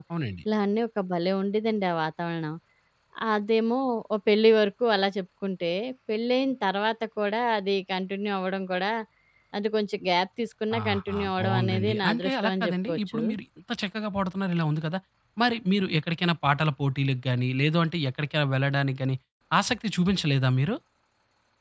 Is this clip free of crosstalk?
No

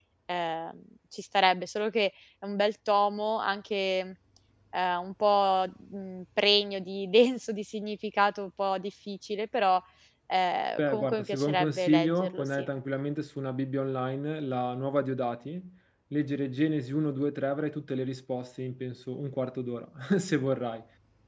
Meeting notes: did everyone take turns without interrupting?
No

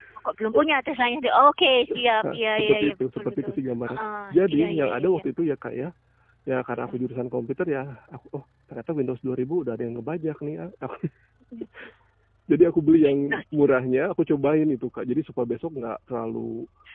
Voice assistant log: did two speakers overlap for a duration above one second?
Yes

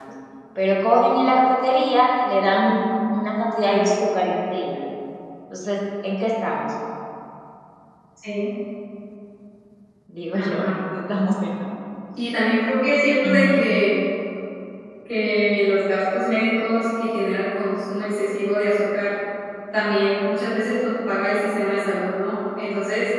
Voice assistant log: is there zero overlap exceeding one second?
Yes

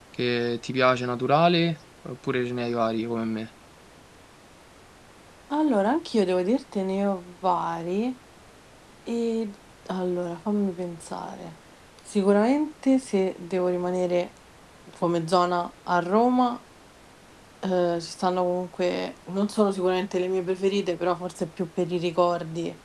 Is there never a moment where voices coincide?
Yes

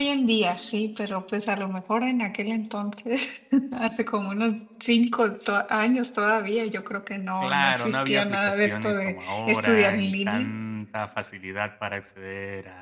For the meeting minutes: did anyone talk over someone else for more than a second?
Yes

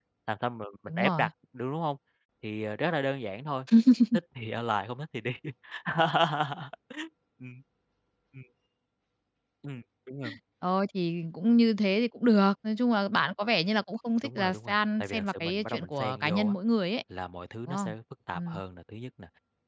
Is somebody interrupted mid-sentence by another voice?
Yes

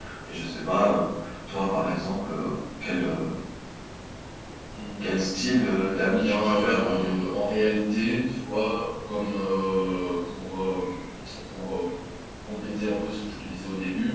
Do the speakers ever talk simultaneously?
Yes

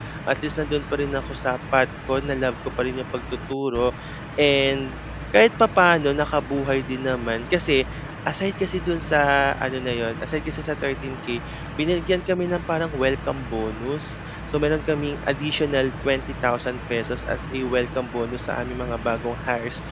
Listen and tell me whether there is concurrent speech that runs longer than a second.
No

